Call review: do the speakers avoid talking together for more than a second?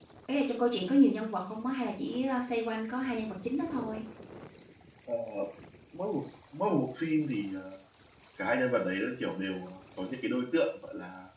Yes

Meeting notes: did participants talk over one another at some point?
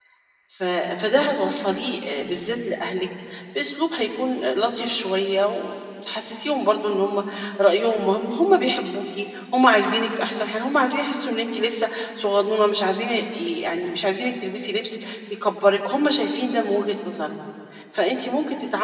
No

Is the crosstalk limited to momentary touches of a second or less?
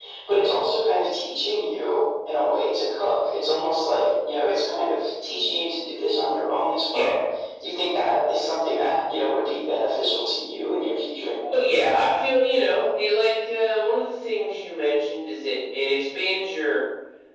Yes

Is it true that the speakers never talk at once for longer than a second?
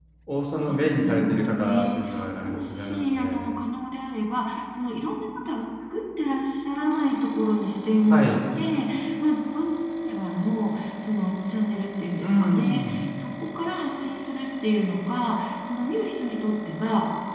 No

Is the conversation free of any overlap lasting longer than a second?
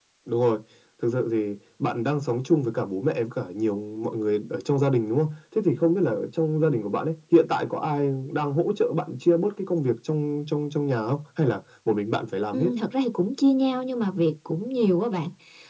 Yes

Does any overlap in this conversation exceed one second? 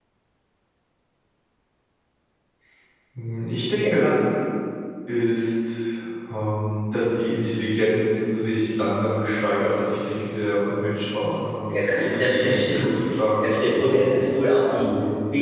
Yes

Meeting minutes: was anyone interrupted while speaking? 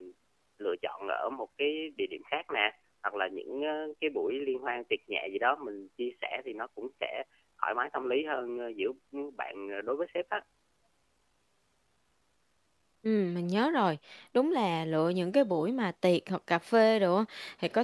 No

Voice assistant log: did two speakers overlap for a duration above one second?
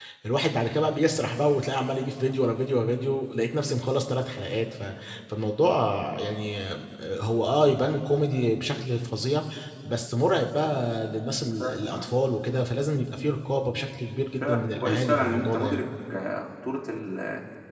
Yes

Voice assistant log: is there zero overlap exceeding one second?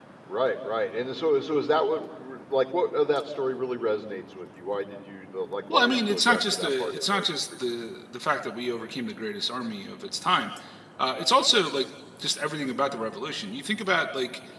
No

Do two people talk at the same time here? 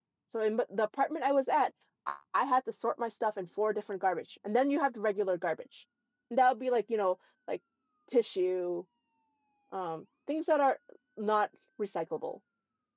No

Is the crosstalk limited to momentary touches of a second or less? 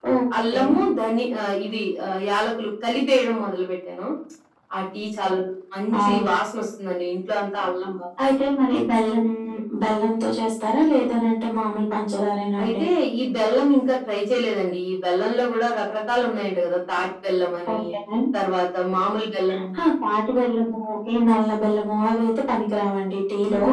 Yes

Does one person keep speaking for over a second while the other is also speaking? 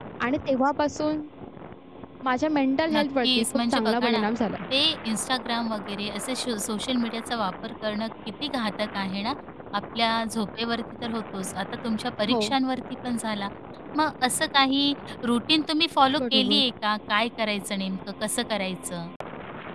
Yes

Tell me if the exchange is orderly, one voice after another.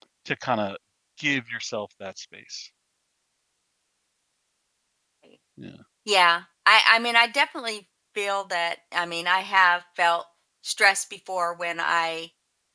Yes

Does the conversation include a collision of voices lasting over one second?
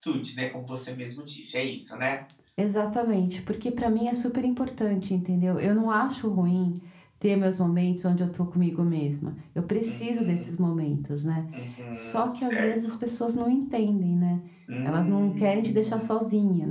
Yes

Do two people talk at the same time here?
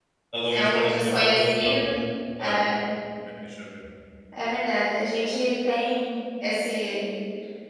Yes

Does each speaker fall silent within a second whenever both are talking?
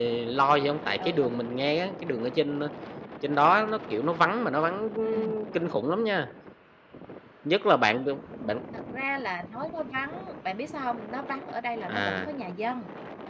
Yes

